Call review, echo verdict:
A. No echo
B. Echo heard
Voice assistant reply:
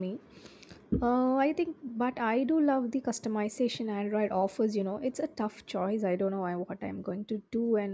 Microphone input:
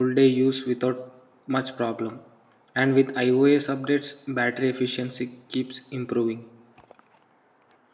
A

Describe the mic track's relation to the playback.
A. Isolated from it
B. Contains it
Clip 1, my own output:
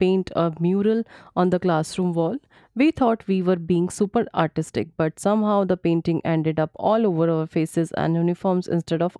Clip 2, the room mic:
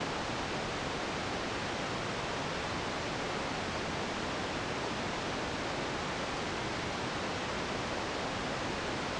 A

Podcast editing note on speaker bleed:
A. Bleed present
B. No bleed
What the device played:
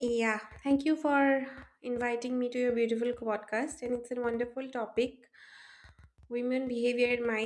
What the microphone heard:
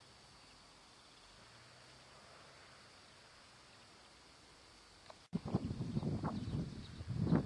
B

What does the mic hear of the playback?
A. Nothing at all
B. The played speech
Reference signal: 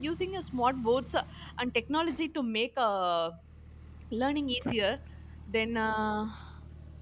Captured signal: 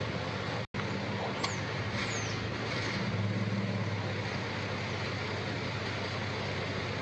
A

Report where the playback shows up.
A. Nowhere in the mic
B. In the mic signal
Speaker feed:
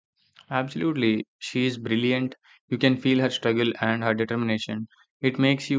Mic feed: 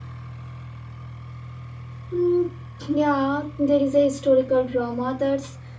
A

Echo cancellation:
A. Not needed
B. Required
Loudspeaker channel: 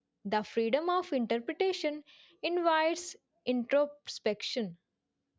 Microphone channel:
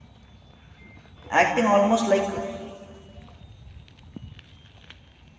A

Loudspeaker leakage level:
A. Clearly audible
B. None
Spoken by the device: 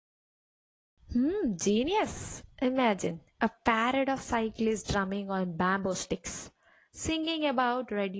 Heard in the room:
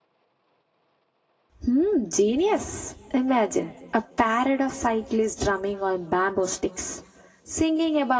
A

